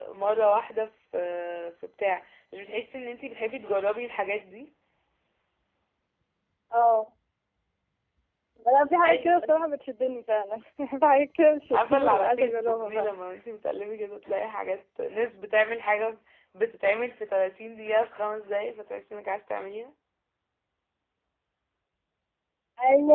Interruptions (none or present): present